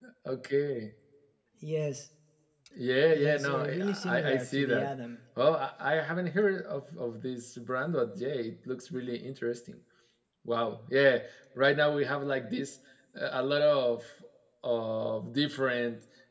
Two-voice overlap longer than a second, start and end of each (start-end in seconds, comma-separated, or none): 3.1-4.9